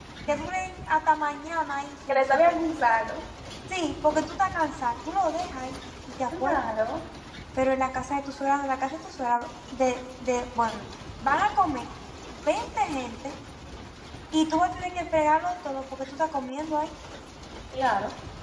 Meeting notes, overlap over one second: none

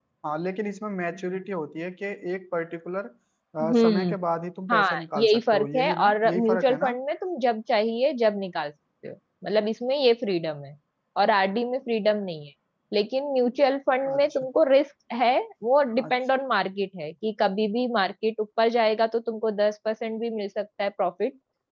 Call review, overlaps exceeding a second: present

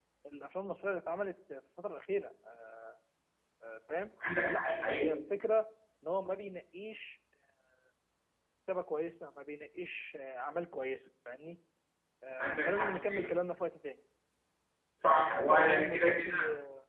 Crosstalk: present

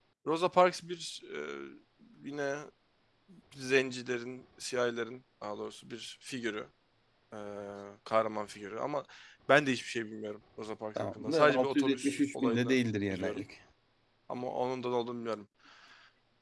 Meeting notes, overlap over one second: present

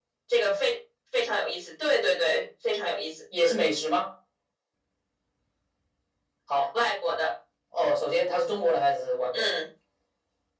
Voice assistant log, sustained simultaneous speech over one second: none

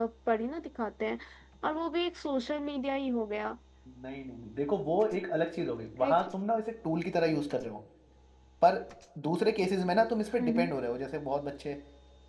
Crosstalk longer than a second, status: none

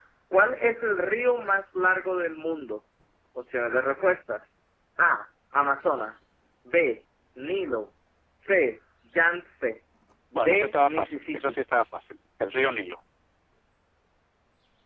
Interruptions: present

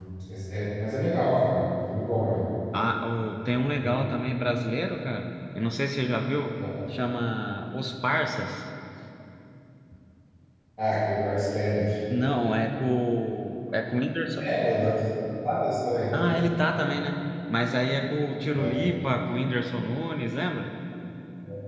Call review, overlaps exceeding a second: none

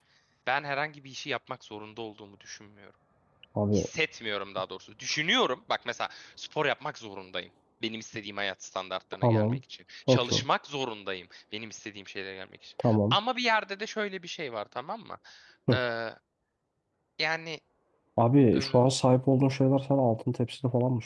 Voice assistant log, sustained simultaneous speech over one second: none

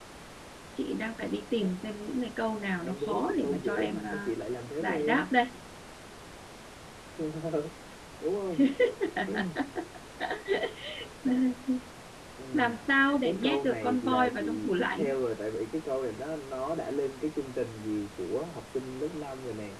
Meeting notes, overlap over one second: present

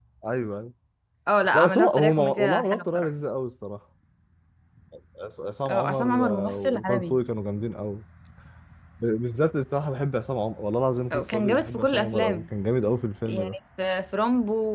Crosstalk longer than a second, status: present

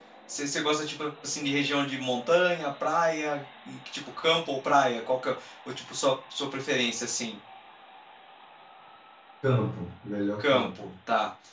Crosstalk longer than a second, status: none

